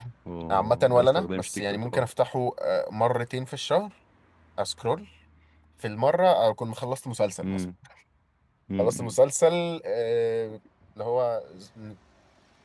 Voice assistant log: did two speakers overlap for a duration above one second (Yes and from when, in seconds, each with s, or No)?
Yes, from 0.5 s